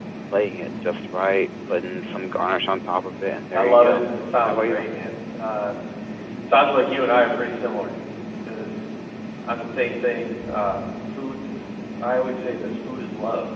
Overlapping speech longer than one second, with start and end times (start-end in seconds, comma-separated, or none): none